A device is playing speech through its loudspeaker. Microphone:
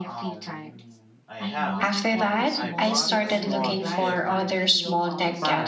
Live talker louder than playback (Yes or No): Yes